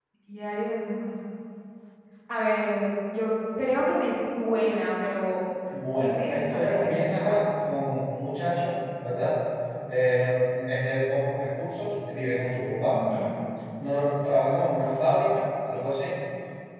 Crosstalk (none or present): present